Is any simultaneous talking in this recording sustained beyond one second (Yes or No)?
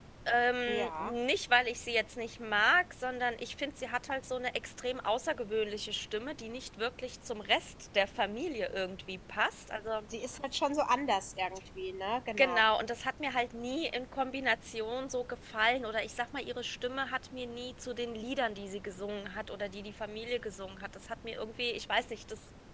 No